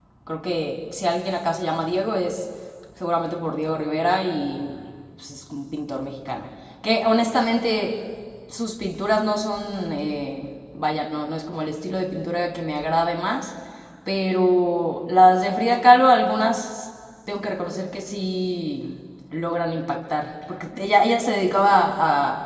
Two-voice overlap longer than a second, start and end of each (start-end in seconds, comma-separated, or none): none